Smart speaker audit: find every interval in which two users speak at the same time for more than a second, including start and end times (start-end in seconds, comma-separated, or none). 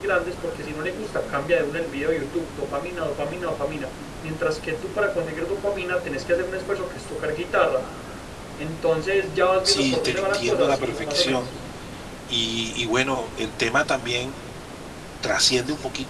9.6-11.5